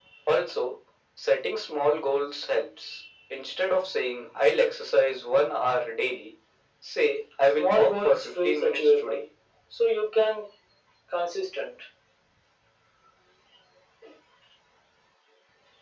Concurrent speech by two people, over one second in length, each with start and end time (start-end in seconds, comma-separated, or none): 7.6-9.2